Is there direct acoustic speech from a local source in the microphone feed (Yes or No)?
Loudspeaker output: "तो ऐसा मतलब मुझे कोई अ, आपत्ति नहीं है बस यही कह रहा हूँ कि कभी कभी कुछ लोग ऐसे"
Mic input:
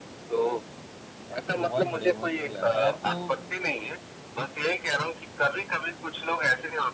Yes